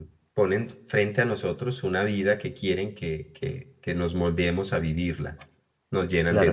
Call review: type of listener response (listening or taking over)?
taking over